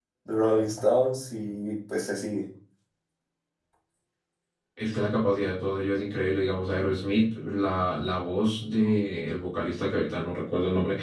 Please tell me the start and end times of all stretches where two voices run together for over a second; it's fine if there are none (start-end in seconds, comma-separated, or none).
none